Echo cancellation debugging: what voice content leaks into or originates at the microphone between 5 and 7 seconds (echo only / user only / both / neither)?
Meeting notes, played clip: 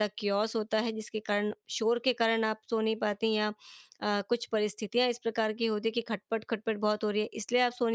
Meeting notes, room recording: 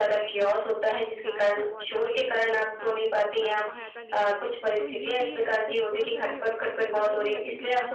both